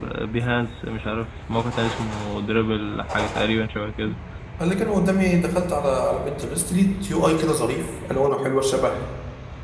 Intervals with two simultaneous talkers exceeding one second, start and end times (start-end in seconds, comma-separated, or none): none